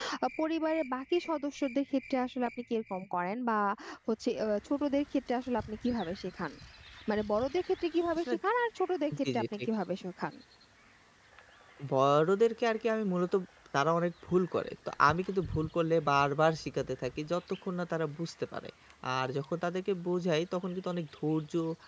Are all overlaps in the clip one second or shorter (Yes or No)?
Yes